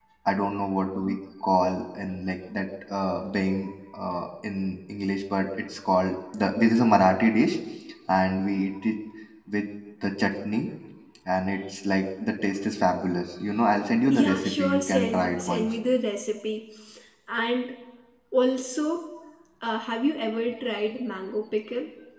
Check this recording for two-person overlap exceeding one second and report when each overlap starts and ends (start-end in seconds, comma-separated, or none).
14.1-15.7